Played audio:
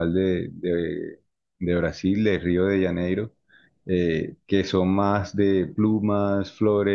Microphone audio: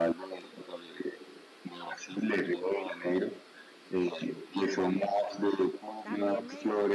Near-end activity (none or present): present